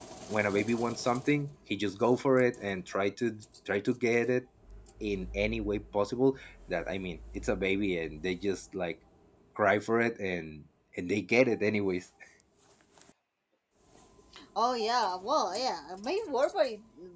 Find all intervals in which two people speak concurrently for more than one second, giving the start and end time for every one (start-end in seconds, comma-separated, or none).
none